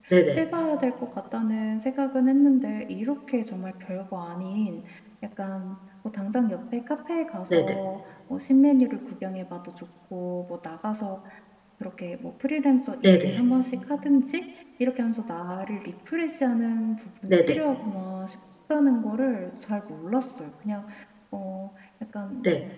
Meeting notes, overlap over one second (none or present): none